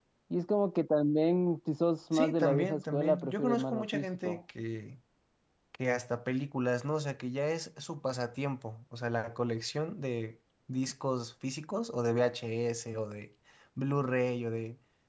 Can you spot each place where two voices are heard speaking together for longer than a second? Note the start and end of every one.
2.1-4.4

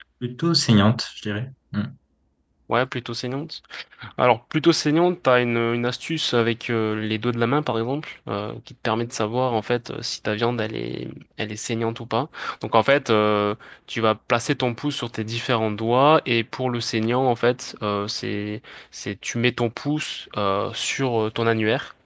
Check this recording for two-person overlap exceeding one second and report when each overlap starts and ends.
none

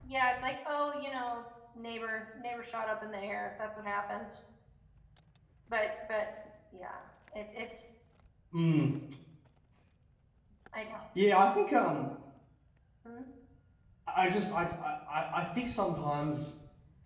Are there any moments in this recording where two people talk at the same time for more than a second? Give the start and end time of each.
none

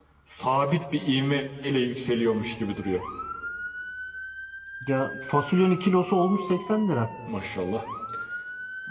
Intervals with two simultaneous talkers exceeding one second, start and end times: none

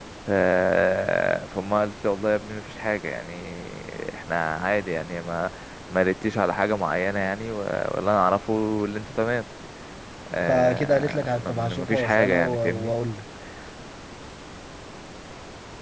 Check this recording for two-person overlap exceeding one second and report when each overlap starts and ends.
10.5-12.9

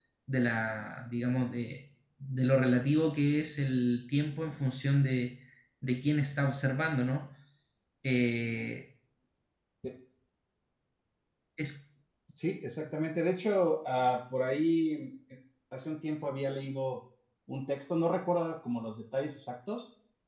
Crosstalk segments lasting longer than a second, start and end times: none

